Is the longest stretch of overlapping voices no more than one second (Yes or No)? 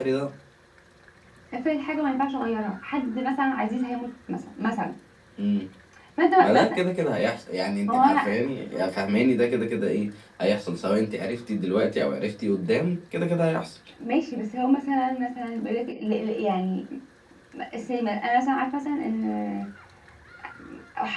Yes